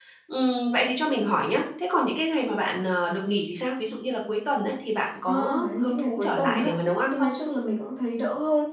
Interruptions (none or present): present